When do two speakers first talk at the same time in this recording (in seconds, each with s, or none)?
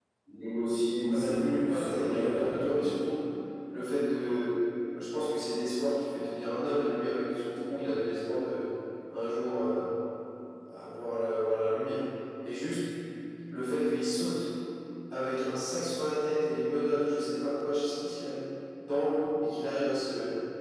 1.1 s